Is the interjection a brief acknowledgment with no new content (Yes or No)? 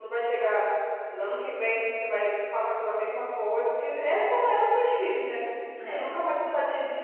Yes